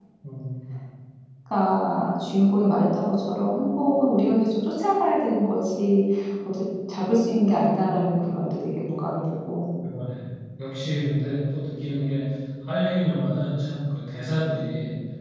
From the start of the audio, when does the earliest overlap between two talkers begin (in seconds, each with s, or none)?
none